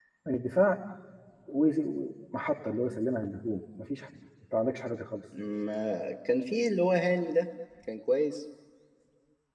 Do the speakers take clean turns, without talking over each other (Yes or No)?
Yes